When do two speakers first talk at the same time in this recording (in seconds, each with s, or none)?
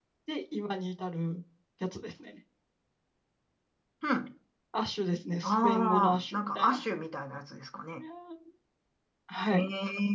5.4 s